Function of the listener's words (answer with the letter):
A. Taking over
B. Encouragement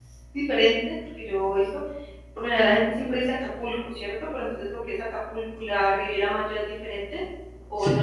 A